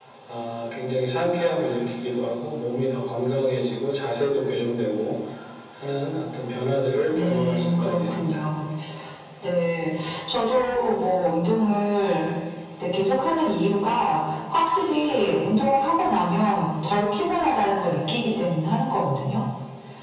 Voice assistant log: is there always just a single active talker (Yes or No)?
No